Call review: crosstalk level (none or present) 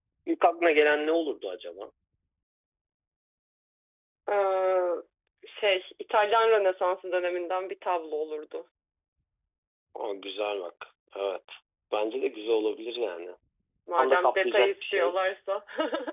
present